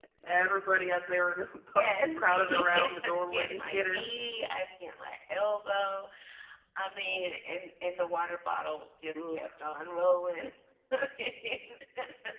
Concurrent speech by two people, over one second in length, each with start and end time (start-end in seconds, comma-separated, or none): 1.8-4.1